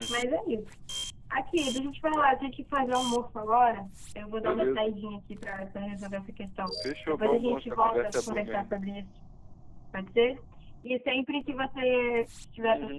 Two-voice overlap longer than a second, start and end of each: 7.1-8.7

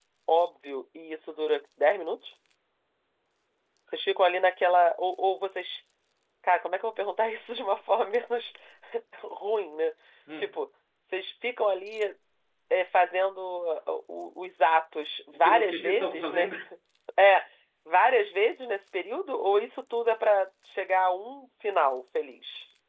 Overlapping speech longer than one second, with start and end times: 15.3-16.6

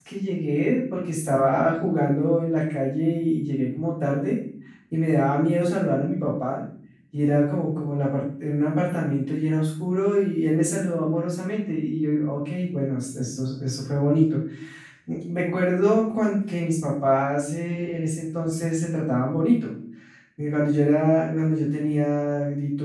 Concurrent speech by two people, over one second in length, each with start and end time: none

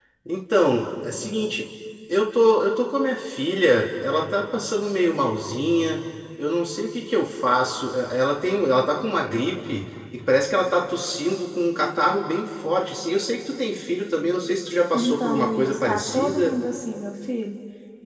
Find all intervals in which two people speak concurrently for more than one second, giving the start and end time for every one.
14.9-16.6

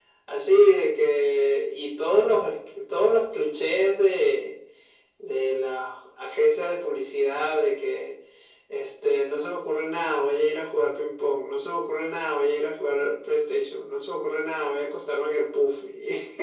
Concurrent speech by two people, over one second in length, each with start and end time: none

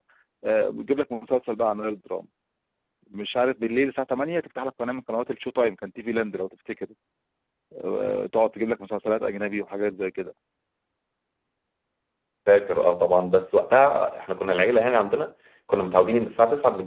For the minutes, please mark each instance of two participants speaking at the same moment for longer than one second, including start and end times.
none

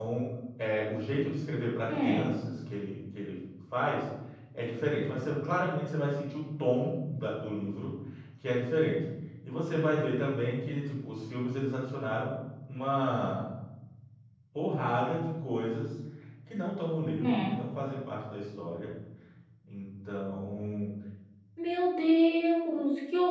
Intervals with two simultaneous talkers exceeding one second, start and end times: none

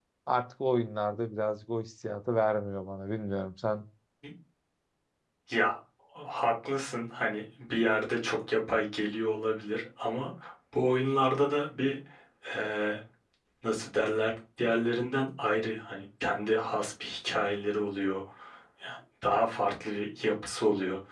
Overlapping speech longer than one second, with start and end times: none

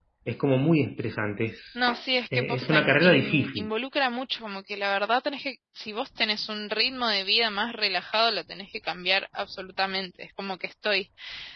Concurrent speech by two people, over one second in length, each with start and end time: 2.3-3.7

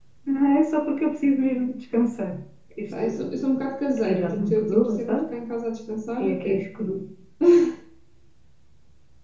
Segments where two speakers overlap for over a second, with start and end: 4.0-5.2

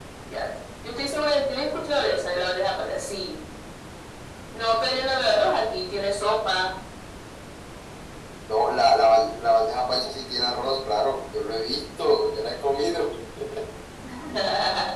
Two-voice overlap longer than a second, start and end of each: none

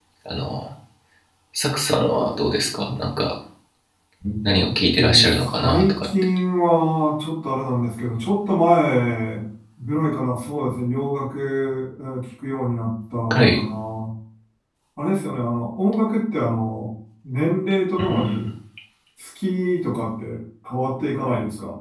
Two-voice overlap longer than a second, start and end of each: 4.7-6.1

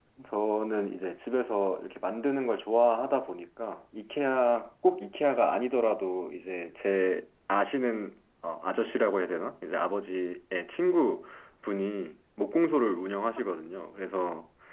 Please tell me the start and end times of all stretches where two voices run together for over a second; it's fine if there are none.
none

